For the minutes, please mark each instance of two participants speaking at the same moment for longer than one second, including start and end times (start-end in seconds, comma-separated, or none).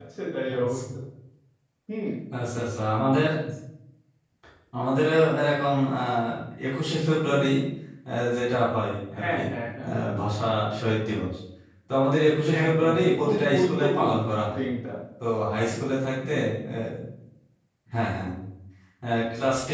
12.6-14.2